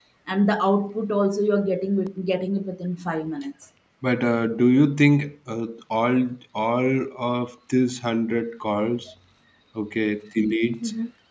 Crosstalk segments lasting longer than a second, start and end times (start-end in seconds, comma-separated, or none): none